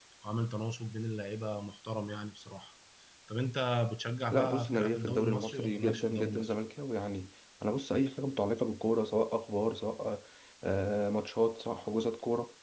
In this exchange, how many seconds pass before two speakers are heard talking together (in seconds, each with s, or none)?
4.3 s